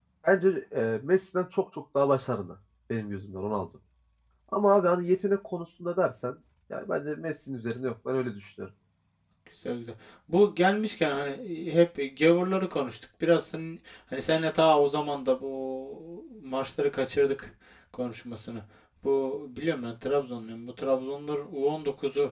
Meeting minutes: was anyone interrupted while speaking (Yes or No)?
No